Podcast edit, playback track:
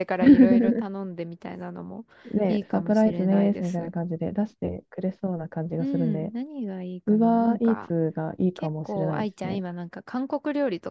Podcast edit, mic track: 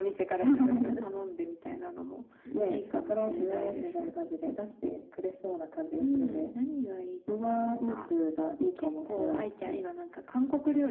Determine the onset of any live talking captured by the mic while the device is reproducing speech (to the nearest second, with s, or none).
none